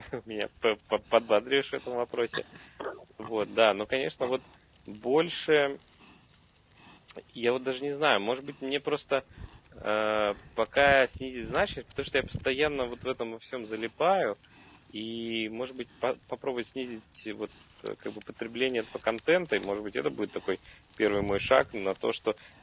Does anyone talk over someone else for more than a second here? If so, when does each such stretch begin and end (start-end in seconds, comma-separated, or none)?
none